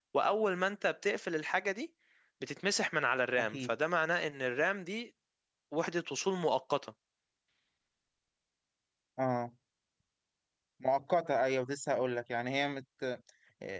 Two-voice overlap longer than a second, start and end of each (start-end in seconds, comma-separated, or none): none